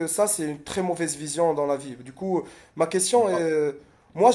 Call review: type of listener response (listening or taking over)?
listening